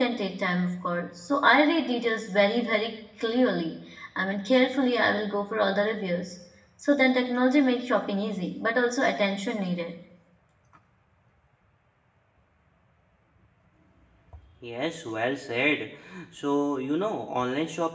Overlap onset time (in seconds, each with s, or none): none